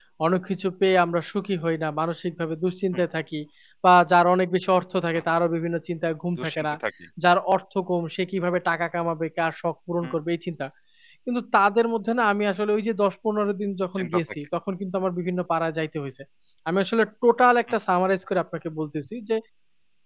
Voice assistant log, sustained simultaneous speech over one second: none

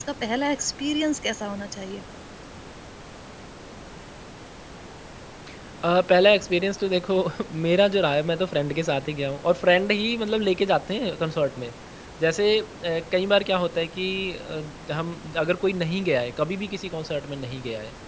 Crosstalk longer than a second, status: none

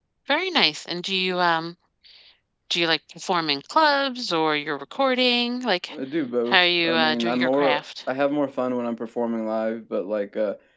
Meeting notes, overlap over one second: present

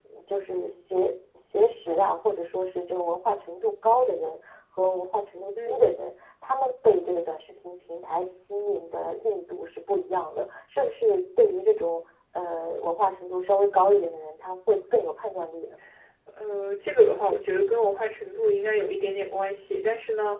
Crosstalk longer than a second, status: none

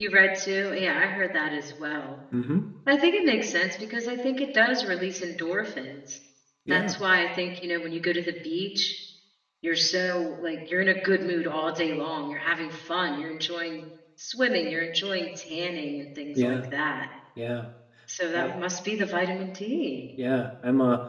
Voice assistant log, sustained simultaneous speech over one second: none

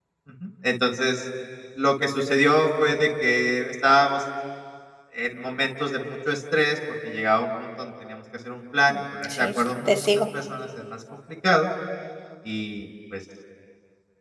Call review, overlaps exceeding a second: present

